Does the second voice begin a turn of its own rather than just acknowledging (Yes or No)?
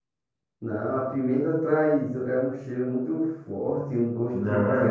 Yes